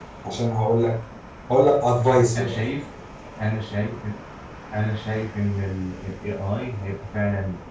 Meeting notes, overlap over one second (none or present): none